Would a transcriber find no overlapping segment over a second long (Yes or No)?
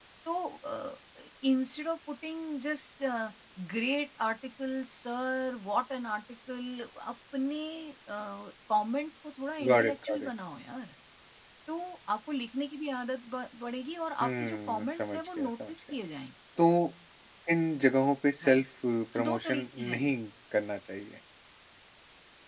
No